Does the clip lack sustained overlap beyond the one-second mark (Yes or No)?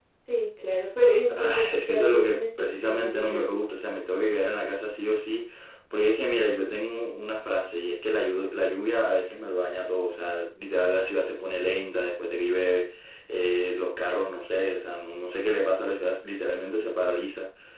No